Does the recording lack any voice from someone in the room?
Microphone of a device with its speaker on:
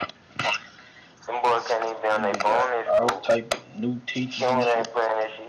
No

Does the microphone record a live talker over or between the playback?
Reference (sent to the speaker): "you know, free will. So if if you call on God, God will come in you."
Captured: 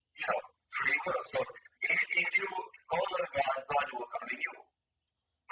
No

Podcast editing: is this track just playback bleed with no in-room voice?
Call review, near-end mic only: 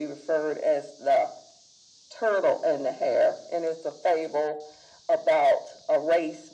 Yes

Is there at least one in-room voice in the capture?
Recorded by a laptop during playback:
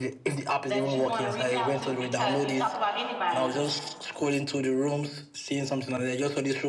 Yes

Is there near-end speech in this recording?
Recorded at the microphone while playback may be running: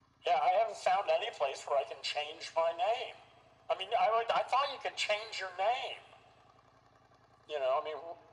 No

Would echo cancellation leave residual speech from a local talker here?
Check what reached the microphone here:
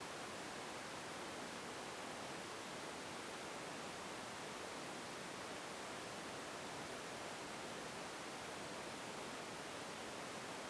No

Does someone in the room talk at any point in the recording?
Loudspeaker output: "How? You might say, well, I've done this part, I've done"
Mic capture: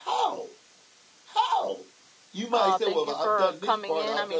Yes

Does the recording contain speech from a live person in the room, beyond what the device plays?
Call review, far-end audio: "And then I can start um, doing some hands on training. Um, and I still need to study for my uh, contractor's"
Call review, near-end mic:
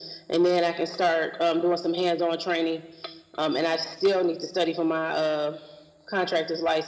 No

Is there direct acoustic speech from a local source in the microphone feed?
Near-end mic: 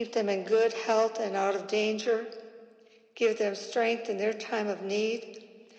No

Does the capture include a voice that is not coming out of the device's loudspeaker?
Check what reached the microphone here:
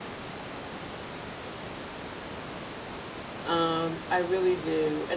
Yes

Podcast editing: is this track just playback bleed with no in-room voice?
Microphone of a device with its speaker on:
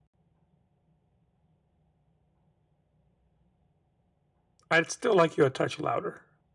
No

